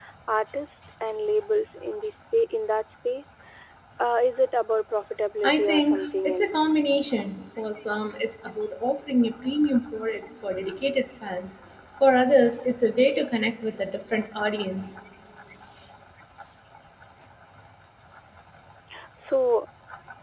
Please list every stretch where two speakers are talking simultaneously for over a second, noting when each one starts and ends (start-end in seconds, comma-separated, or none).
5.4-6.7